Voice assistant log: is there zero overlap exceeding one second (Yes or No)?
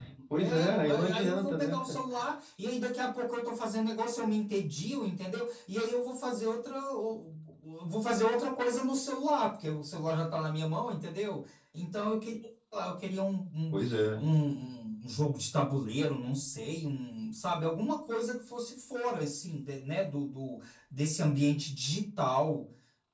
No